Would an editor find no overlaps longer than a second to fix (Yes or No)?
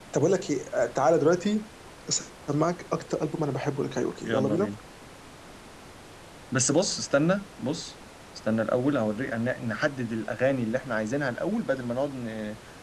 Yes